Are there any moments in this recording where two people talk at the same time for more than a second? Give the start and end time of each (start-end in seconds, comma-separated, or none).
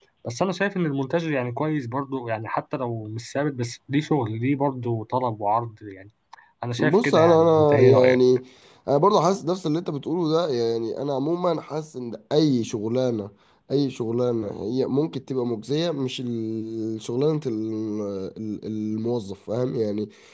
6.8-8.2